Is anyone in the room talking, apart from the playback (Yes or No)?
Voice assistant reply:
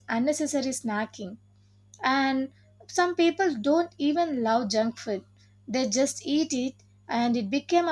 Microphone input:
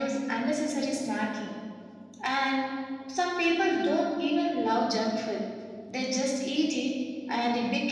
No